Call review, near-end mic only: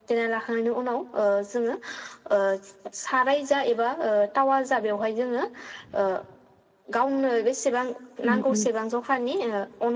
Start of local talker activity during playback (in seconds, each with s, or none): 8.2 s